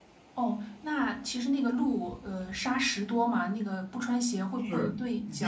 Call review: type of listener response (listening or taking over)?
taking over